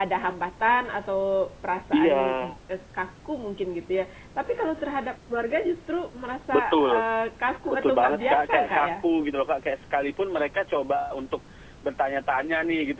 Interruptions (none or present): present